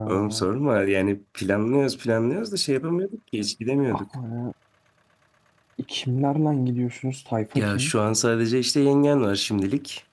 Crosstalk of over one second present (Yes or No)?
No